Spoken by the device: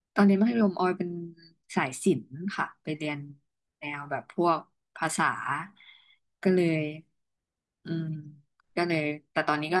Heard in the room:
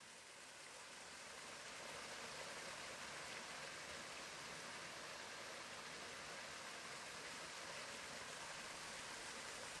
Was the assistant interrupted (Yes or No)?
No